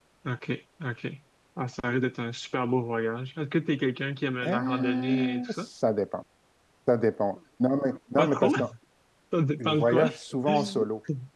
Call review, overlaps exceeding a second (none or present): present